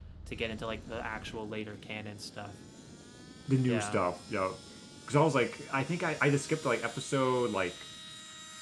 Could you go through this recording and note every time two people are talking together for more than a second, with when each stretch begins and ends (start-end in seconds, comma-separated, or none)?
none